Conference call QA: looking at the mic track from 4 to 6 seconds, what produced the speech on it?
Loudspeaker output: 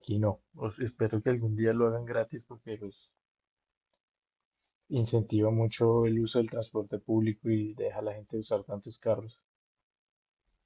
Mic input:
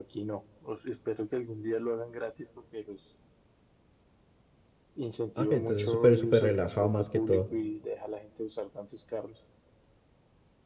both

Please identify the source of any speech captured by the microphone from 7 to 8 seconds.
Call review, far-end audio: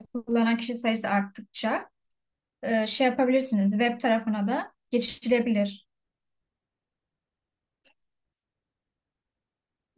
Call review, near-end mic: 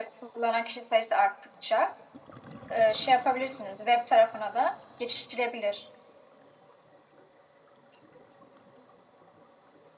neither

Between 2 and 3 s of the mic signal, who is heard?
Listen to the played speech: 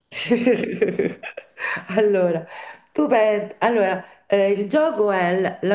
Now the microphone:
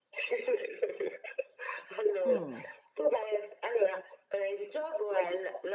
both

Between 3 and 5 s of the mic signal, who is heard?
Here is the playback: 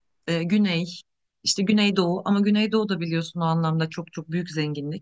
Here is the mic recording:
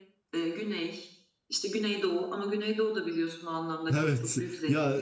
both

